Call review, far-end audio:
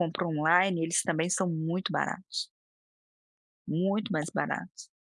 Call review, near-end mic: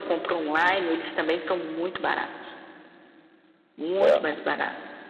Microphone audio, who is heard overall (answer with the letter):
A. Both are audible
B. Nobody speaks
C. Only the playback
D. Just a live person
A